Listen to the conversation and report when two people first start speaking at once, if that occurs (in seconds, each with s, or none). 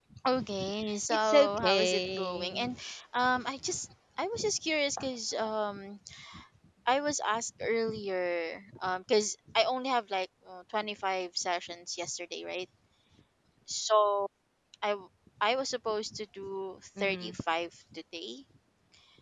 1.1 s